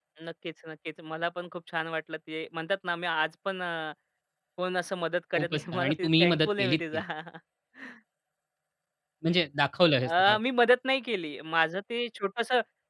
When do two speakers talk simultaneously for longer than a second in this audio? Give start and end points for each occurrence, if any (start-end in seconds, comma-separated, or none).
5.3-7.0